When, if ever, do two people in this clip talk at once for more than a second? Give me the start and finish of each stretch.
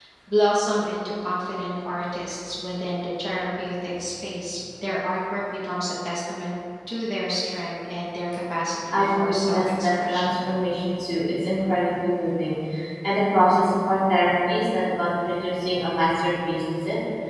8.9-10.4

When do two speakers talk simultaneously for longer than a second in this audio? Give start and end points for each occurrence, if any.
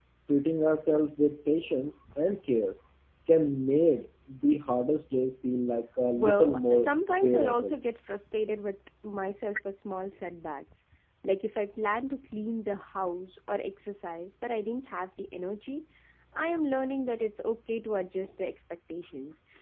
6.1-7.8

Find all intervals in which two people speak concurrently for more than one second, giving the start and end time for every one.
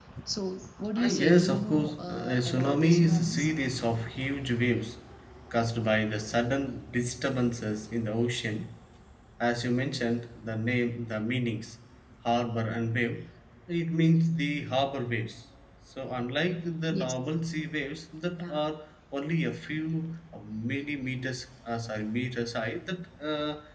0.9-3.5

